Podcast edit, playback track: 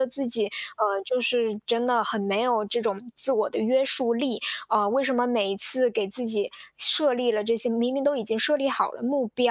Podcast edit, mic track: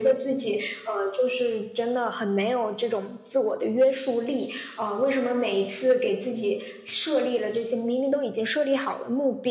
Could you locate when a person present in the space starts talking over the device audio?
none

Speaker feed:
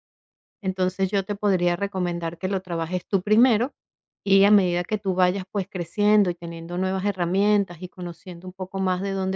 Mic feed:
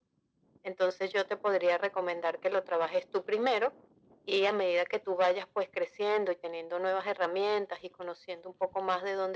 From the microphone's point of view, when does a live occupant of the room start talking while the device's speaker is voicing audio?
none

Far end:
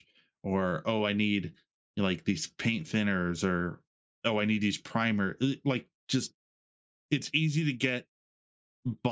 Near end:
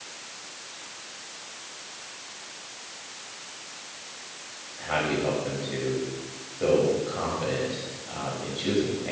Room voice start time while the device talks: 5 s

